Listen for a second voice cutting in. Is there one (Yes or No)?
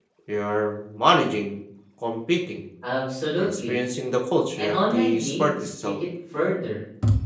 Yes